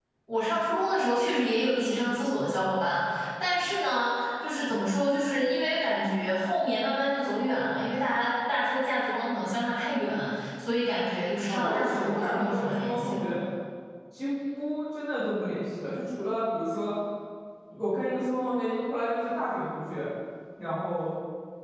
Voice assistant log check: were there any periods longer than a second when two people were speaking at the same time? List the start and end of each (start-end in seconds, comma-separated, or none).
11.5-13.2